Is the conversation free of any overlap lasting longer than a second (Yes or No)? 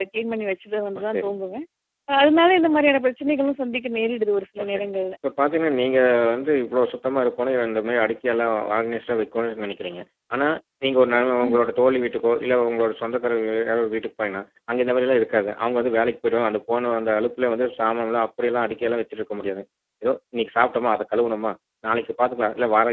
Yes